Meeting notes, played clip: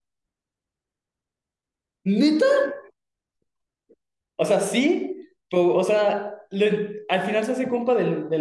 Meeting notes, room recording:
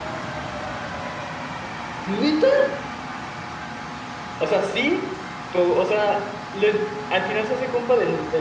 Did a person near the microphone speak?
No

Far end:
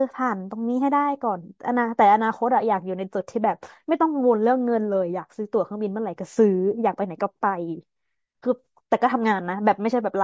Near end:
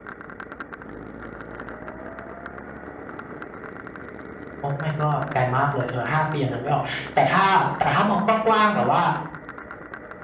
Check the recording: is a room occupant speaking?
Yes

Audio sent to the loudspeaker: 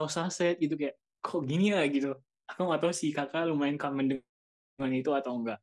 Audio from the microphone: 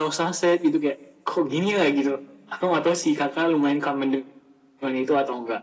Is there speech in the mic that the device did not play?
No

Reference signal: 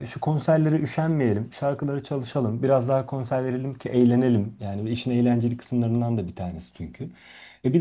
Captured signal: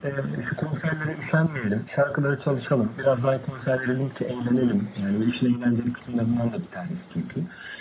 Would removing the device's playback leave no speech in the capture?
Yes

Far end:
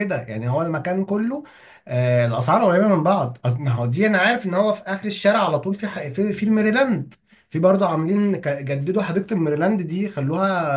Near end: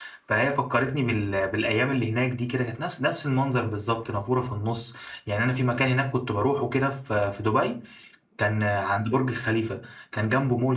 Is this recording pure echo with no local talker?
No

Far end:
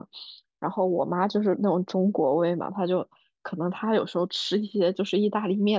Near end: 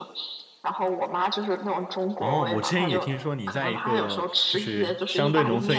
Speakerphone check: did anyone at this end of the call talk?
Yes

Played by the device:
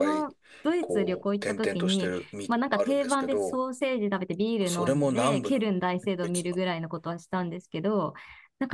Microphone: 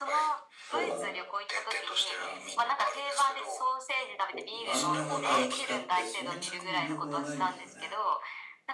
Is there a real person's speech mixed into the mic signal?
Yes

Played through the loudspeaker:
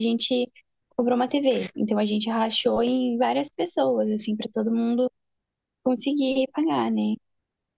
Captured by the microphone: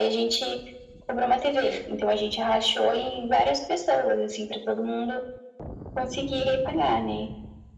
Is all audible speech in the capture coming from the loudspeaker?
Yes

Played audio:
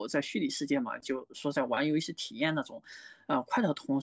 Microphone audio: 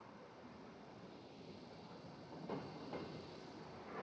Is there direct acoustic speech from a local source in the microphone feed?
No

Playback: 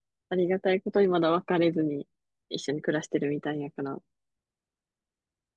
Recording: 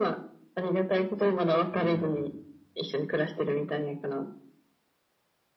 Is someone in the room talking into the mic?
Yes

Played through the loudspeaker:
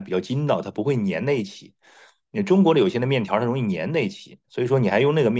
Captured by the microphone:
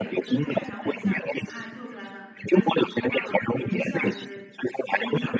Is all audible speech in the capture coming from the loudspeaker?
No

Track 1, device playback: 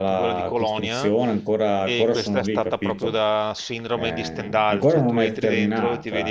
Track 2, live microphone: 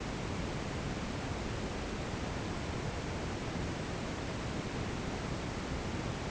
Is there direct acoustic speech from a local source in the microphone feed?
No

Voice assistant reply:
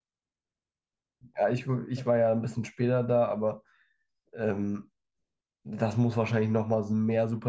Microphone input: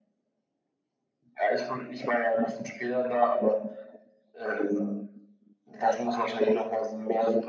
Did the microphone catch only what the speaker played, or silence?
Yes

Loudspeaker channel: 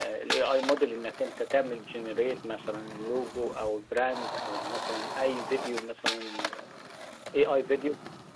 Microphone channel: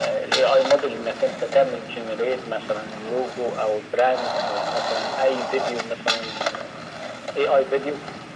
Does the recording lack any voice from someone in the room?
Yes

